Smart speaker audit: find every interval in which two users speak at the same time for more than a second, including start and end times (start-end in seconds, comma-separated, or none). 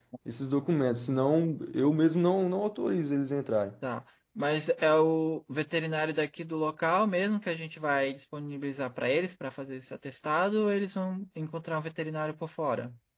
none